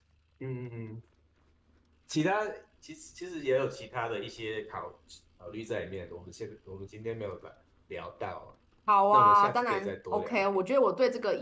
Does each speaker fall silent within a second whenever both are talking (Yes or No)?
No